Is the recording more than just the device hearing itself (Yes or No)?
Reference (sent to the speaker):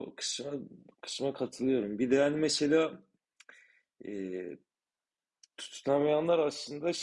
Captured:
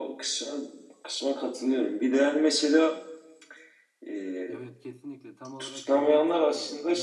Yes